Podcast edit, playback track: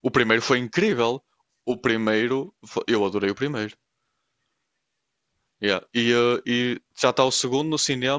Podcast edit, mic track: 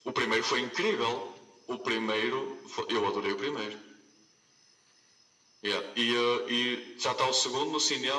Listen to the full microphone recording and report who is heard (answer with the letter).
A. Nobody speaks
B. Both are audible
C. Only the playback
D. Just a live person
C